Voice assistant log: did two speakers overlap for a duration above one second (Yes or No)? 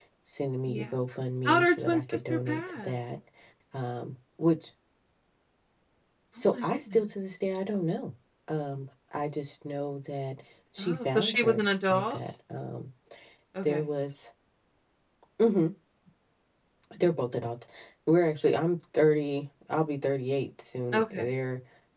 Yes